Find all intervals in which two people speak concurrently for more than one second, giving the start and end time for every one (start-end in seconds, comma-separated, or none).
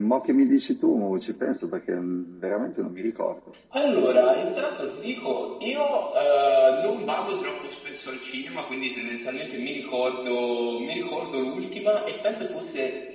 none